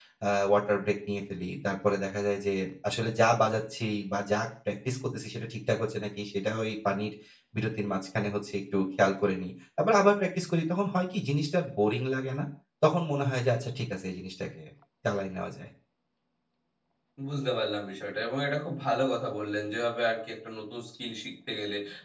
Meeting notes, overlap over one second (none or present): none